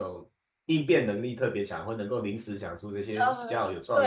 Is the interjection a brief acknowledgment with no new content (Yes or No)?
No